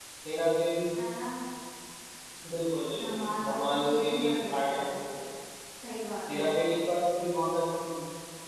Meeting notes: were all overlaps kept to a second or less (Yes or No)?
No